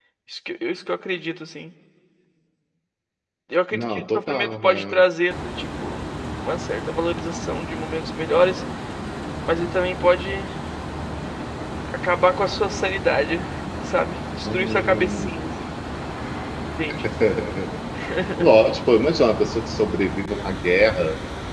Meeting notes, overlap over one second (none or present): present